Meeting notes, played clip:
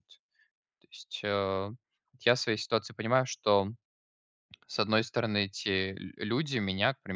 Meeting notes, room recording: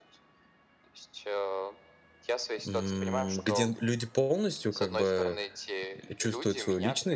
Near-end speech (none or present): present